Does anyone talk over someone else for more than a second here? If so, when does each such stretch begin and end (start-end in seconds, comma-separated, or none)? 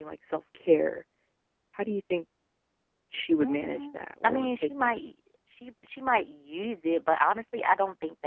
3.4-4.9